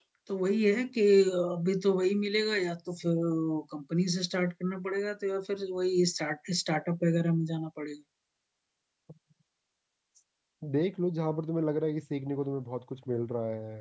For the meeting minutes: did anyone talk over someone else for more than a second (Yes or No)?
No